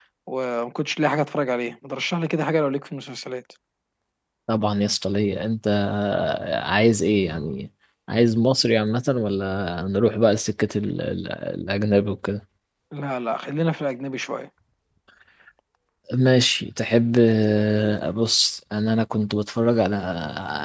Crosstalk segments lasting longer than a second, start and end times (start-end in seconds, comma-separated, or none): none